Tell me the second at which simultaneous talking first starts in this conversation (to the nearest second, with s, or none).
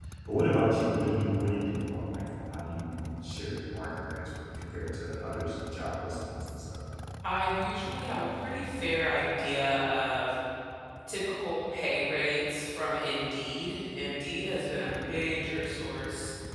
none